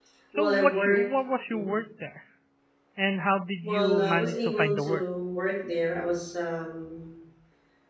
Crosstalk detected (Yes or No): Yes